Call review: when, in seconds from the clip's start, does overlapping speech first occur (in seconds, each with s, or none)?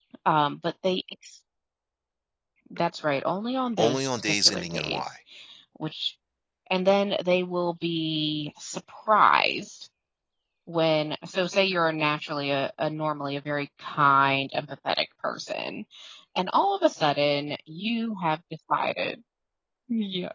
3.8 s